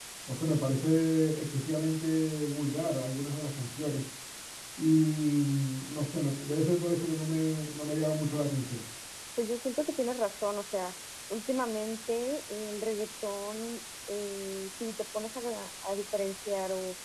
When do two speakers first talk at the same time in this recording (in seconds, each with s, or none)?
none